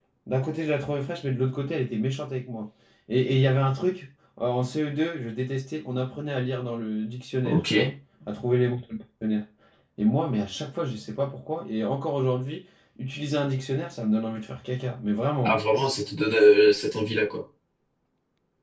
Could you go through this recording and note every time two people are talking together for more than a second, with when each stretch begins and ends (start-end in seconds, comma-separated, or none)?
none